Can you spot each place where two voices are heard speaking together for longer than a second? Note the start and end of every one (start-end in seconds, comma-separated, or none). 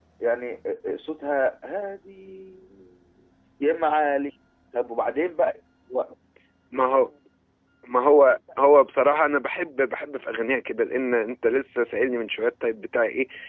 none